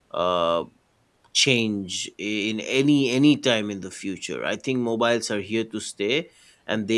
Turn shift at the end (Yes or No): No